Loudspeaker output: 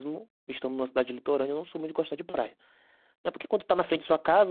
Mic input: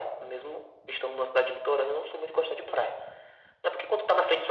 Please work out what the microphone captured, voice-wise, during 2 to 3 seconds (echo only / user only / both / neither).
echo only